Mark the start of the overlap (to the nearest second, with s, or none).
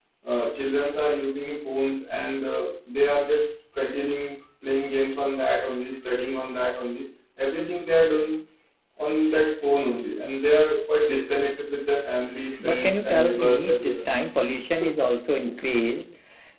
13 s